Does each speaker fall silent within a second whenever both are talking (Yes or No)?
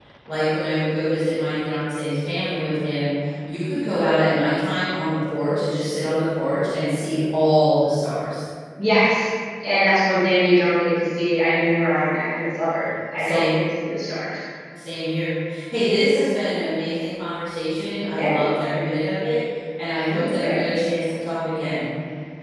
Yes